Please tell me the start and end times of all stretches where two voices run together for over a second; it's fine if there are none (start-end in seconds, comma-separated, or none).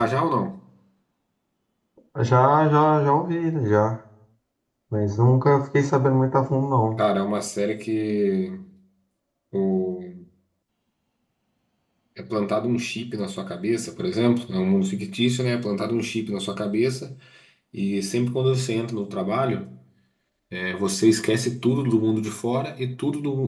none